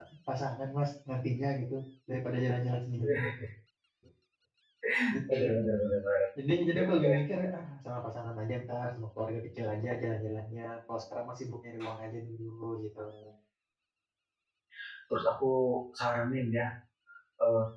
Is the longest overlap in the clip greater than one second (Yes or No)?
No